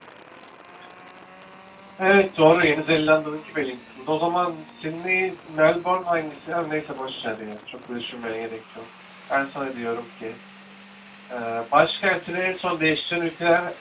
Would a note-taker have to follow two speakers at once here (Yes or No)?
No